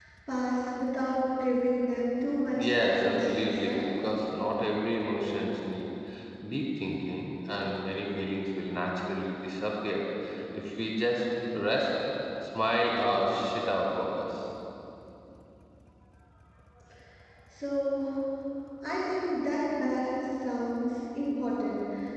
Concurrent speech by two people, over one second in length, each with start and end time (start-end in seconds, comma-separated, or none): 2.6-3.9